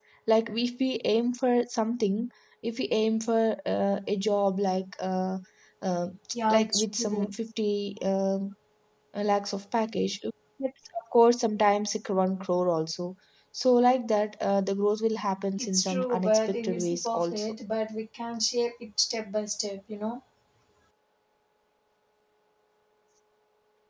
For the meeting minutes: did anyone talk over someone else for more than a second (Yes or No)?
Yes